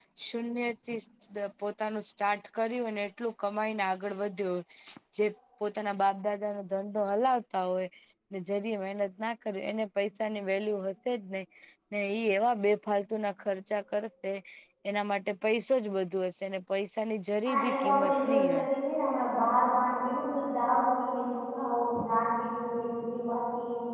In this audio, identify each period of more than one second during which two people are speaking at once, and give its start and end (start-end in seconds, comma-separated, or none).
17.4-18.6